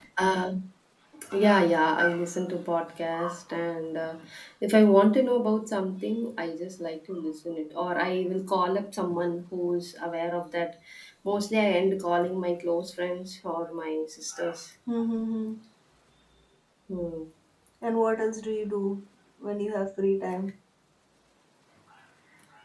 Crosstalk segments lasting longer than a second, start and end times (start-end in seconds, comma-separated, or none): none